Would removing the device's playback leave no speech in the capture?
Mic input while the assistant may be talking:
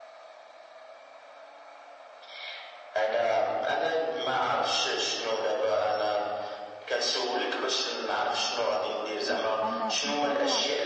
No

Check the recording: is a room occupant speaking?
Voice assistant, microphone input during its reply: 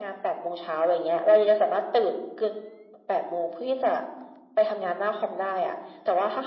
No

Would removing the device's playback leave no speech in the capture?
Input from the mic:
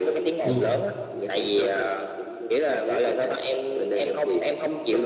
No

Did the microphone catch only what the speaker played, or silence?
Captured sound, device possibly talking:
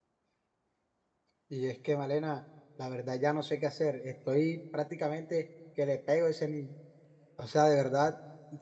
No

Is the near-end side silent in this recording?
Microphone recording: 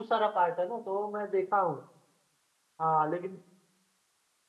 No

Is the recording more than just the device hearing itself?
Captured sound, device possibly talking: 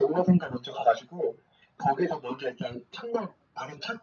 No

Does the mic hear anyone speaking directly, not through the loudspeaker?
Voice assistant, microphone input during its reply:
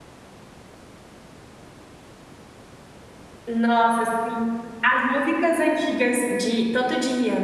Yes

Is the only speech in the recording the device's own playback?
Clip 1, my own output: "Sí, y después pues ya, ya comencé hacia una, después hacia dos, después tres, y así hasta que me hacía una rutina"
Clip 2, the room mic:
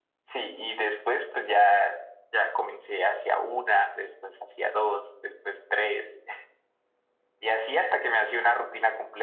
Yes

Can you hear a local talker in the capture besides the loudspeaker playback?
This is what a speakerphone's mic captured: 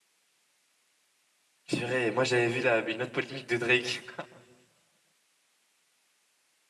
Yes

